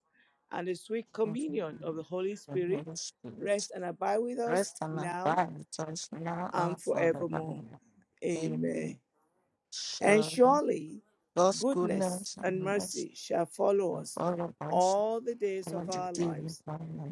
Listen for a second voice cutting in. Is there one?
Yes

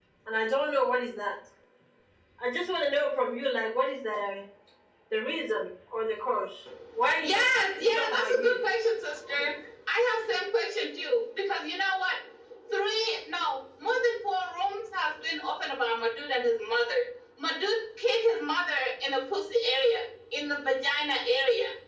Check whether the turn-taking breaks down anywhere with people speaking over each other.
Yes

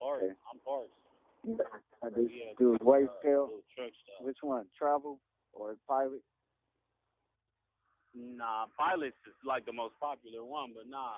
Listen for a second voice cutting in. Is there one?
Yes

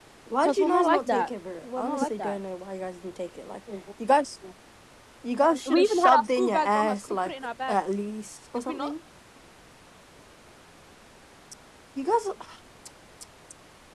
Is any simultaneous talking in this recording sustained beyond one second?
Yes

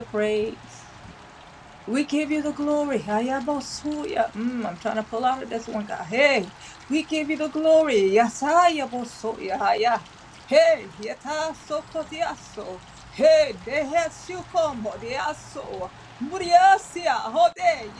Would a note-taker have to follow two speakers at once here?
No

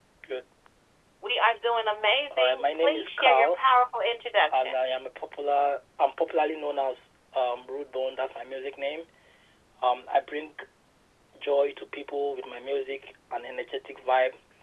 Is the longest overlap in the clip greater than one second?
Yes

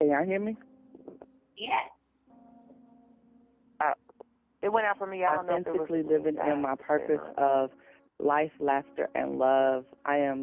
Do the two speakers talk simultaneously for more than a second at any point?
Yes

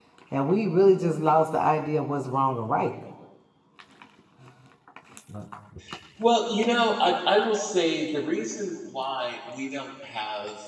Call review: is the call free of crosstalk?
Yes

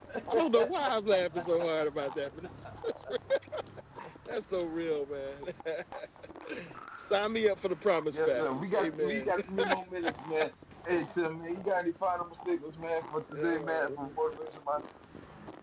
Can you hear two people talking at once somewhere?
Yes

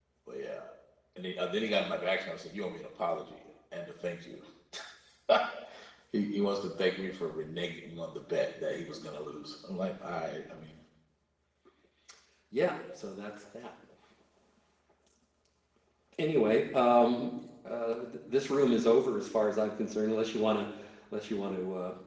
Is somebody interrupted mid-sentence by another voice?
No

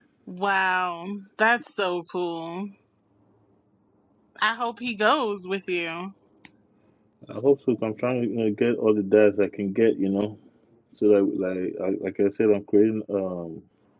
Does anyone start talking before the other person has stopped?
No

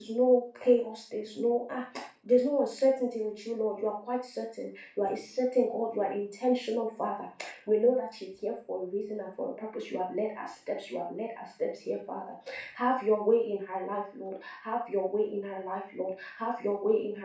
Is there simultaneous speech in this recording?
No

